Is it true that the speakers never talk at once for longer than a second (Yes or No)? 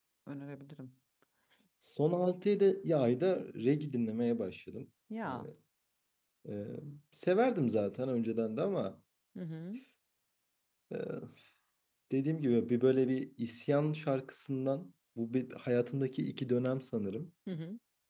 Yes